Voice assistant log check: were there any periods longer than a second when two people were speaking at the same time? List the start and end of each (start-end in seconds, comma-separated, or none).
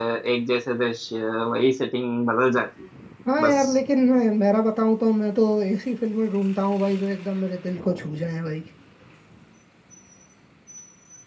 none